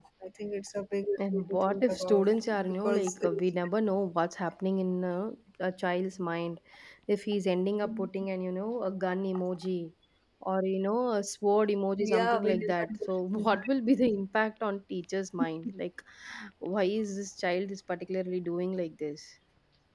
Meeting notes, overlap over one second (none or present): present